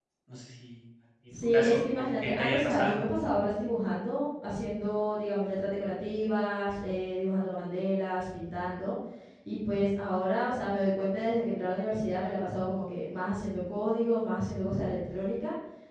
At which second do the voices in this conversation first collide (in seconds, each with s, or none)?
1.3 s